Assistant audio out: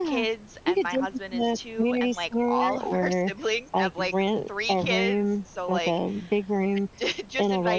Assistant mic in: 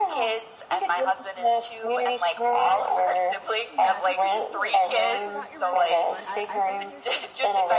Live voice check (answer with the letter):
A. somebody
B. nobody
A